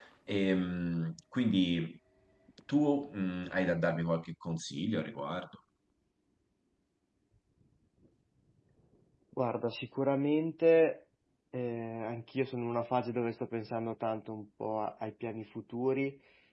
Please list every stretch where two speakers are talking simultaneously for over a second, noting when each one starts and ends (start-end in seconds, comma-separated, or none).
none